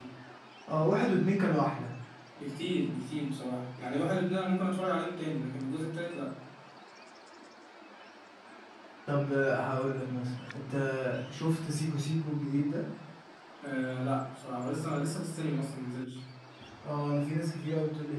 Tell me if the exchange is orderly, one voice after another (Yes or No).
Yes